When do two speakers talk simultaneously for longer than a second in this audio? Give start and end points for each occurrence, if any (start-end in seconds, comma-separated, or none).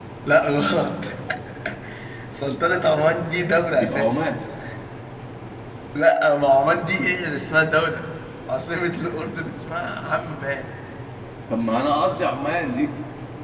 none